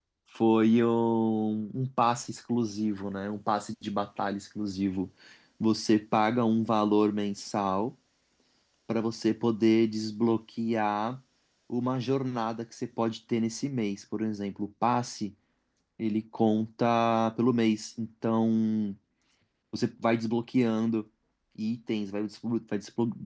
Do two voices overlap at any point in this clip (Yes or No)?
No